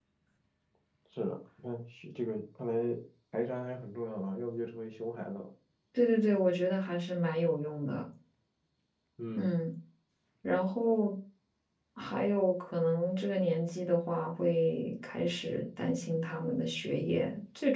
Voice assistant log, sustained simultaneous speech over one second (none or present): none